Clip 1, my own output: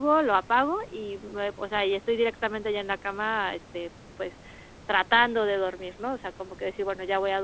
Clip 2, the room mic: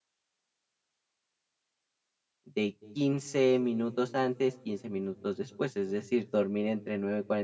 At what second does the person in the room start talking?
2.4 s

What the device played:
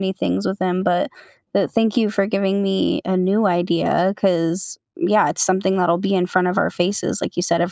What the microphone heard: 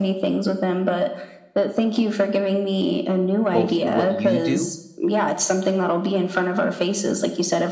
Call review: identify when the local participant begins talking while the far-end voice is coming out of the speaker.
3.5 s

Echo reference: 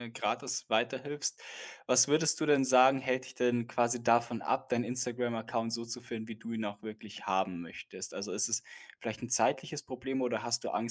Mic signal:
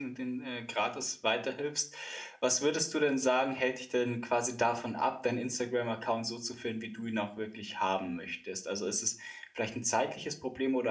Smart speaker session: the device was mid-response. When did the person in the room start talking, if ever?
none

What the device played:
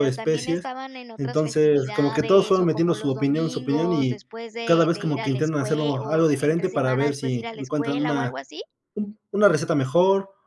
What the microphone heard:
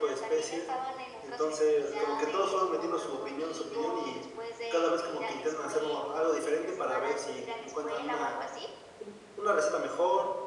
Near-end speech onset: none

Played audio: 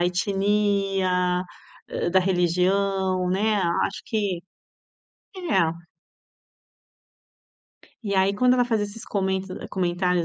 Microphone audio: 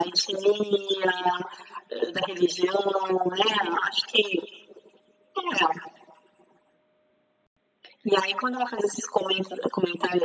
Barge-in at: none

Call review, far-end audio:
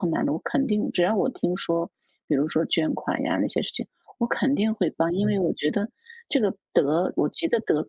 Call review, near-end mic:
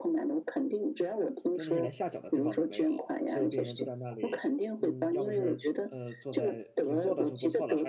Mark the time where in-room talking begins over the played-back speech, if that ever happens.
1.5 s

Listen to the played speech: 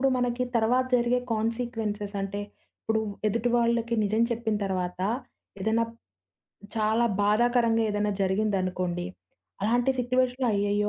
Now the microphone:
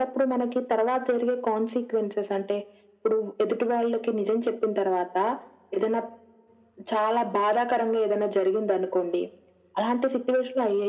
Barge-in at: none

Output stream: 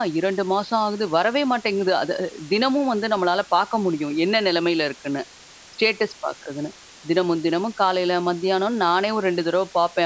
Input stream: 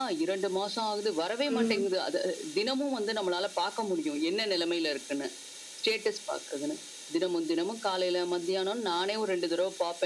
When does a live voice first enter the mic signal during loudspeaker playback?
1.5 s

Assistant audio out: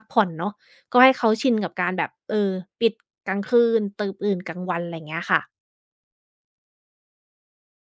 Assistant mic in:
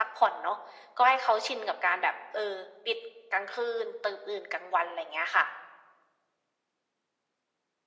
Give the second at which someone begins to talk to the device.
none

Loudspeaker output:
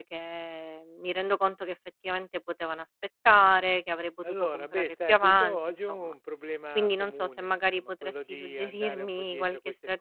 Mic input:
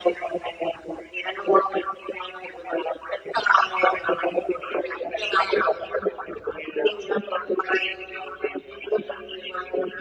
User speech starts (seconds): none

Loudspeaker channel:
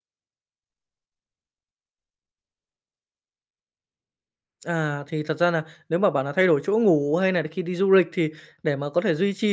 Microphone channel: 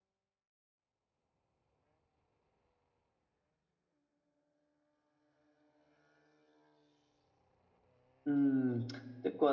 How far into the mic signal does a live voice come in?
8.2 s

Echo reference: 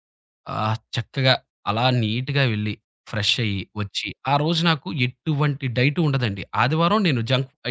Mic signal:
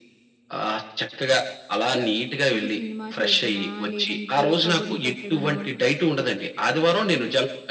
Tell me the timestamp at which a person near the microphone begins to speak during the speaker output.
2.6 s

